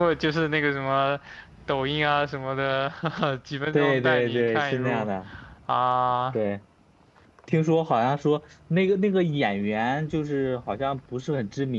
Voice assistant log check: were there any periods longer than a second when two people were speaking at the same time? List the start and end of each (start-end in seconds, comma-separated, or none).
3.7-5.1